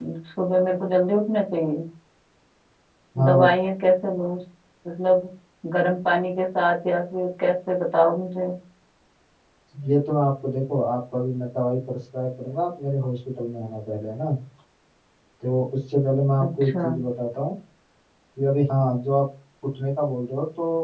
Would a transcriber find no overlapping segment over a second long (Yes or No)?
Yes